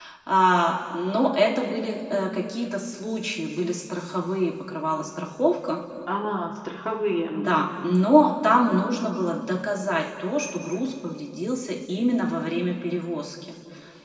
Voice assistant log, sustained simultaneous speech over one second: none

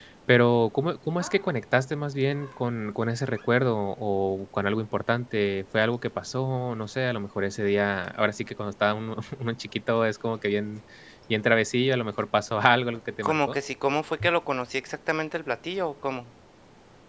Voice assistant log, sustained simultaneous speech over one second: none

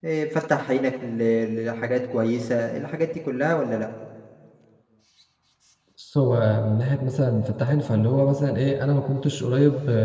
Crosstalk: none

